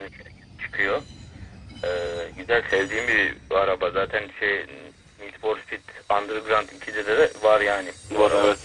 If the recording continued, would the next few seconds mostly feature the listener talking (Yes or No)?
No